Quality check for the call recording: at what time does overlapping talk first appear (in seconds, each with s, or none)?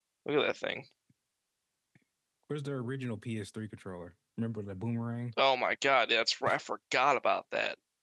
none